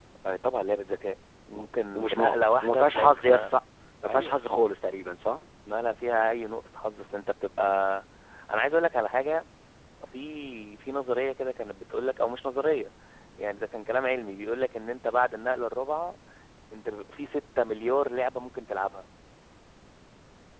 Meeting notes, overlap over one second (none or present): present